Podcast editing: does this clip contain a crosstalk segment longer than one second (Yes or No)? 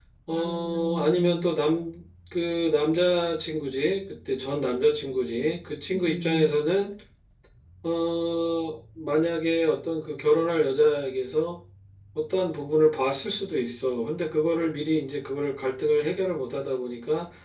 Yes